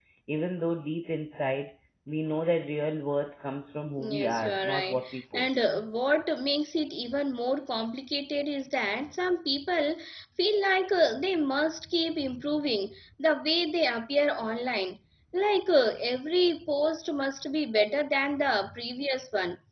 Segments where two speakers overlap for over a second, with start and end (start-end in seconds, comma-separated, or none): 4.0-5.6